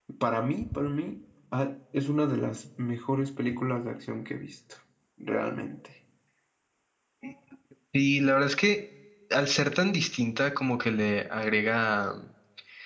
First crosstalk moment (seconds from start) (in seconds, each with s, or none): none